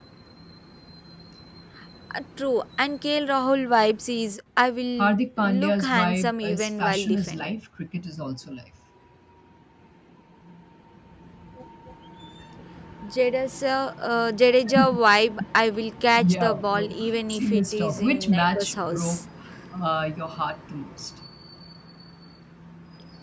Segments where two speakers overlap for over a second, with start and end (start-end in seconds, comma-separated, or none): 5.0-7.6, 16.2-19.2